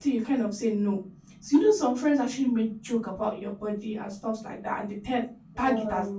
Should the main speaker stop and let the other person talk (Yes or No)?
No